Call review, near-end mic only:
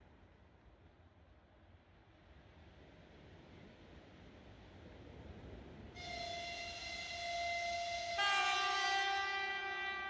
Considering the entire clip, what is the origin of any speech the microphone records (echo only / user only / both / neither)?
neither